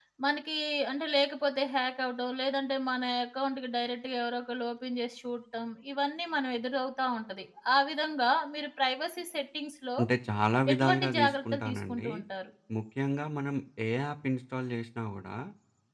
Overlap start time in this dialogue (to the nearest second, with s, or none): 11 s